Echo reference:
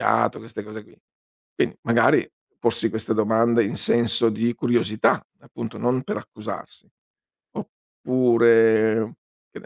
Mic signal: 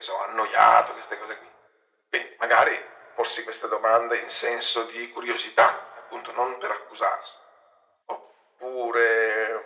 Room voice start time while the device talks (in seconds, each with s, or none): none